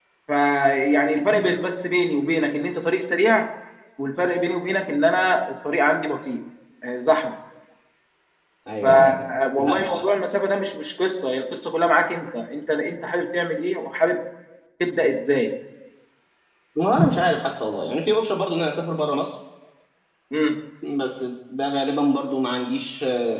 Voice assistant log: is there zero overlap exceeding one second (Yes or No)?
Yes